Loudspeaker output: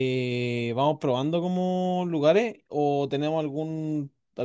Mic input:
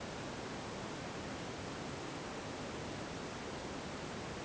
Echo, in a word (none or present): none